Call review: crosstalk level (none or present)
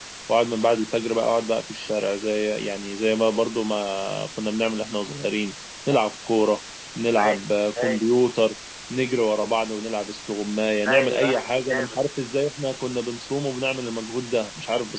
present